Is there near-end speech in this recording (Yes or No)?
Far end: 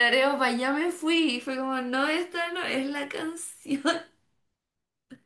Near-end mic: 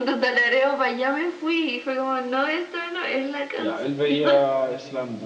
Yes